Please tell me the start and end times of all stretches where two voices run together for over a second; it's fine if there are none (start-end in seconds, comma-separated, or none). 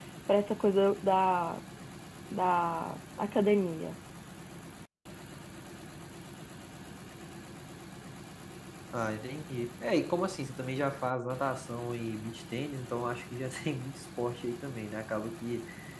none